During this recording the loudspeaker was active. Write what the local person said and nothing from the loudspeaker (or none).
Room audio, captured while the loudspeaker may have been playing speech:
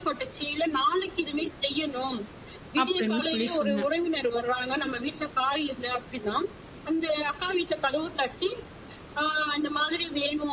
அப்படின்னு சொல்லி சொன்னேன்.